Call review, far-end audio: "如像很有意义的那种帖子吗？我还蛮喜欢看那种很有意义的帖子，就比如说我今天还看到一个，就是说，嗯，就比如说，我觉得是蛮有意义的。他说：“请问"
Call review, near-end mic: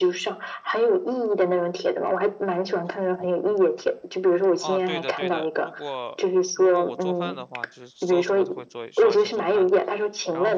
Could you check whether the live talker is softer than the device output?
Yes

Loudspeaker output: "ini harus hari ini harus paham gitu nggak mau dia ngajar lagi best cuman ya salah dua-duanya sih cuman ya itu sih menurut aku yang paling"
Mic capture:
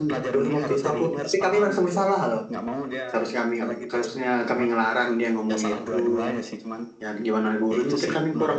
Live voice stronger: Yes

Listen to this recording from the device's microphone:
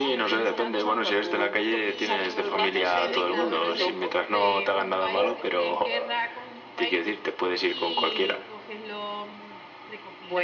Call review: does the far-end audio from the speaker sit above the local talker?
Yes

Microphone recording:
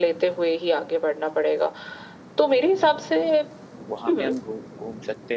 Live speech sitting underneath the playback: Yes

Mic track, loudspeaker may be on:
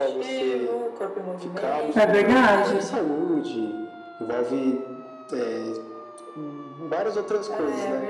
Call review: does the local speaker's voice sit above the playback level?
Yes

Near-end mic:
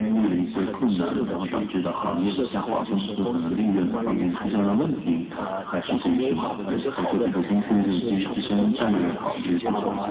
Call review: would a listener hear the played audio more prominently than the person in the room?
Yes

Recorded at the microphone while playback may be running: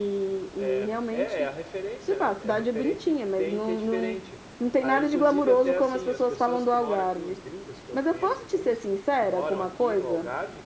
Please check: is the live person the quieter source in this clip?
Yes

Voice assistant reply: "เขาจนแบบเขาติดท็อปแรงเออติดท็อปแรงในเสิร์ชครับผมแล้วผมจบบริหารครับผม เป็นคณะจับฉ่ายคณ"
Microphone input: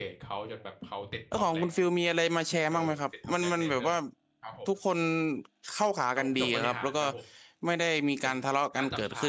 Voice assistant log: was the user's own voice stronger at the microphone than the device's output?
Yes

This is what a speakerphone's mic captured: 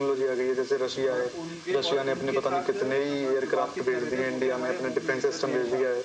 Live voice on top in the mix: No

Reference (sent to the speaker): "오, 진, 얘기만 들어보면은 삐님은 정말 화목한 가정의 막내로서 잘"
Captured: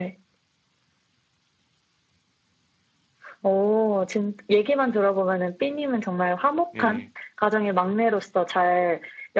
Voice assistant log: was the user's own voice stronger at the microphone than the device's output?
No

